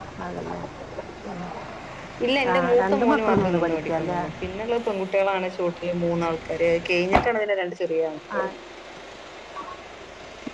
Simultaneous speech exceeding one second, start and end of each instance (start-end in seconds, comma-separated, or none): 2.5-4.2